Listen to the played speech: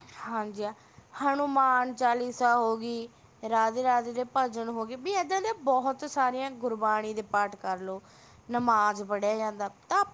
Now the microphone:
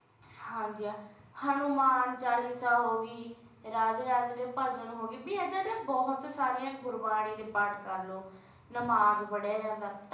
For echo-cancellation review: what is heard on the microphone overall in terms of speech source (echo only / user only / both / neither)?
echo only